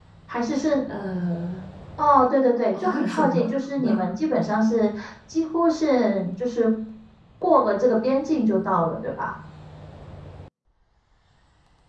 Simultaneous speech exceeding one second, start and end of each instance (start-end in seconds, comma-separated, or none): 2.8-4.1